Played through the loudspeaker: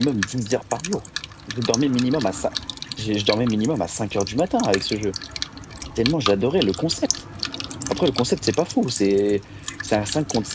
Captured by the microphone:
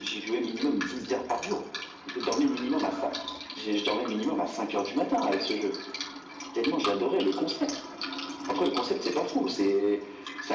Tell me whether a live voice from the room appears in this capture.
No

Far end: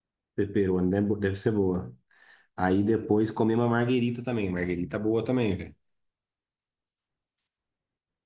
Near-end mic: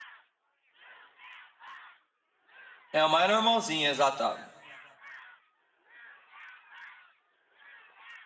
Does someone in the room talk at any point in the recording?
Yes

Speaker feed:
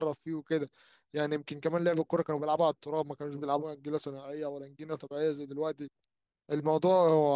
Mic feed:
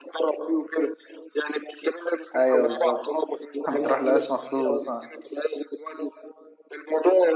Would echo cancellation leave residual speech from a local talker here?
Yes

